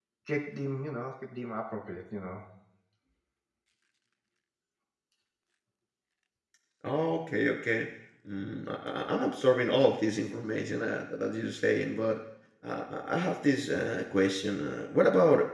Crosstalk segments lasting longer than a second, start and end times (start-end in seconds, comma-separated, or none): none